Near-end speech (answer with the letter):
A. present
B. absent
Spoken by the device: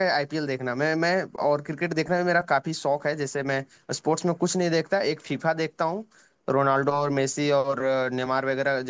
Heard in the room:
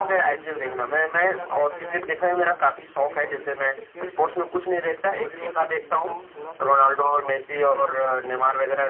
A